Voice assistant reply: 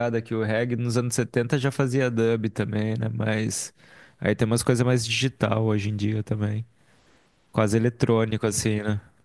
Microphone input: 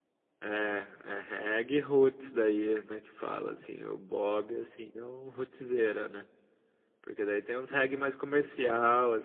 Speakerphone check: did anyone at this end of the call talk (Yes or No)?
Yes